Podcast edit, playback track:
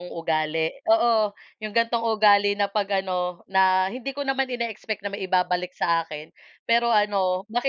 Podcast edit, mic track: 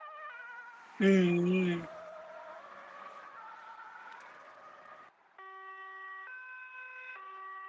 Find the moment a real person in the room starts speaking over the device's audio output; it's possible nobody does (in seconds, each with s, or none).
1.0 s